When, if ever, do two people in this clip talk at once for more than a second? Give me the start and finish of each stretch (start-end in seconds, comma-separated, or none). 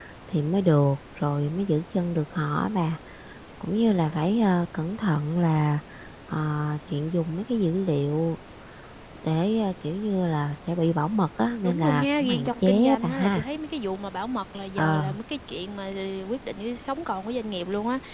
11.6-13.4